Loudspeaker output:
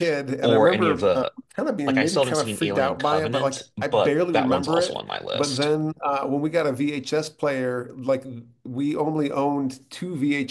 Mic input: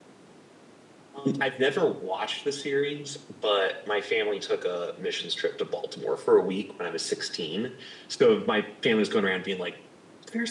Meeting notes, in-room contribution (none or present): present